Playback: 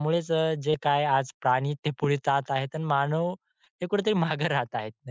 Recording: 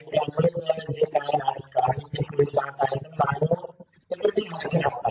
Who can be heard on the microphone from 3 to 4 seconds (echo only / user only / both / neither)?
echo only